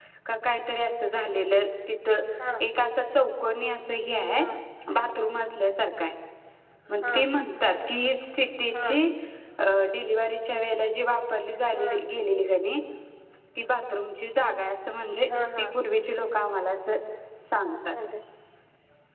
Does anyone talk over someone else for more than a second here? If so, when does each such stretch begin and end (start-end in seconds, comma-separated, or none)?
none